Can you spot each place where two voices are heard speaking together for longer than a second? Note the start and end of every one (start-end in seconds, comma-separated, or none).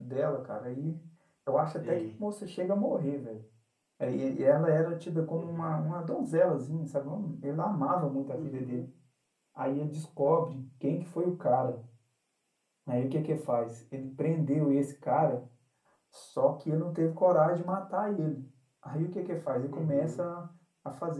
none